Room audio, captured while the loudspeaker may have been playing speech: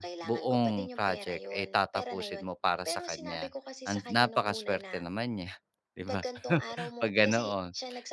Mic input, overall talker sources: both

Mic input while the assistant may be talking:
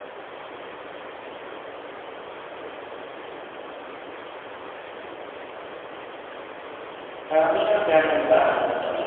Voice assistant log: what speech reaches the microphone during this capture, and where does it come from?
user only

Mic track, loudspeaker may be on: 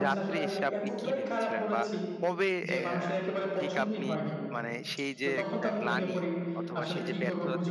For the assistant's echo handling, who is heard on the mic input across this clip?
both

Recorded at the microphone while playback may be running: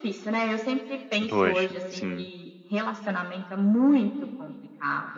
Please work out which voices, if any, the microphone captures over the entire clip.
both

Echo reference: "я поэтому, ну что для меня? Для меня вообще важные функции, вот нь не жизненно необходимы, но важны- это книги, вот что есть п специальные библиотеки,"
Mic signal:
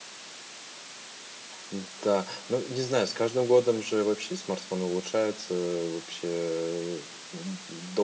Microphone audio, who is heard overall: user only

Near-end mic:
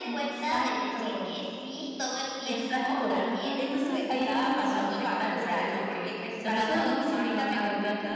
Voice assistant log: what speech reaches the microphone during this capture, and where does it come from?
both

